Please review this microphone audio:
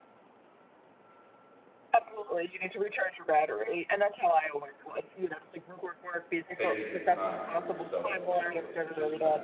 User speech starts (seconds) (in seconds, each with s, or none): 6.5 s